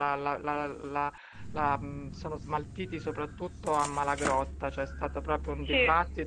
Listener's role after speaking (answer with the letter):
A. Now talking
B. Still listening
B